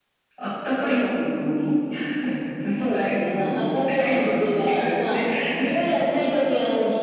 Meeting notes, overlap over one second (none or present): present